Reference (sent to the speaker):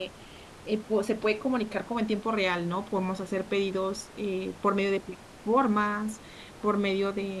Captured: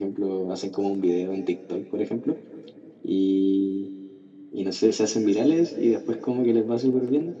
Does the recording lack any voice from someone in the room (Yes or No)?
No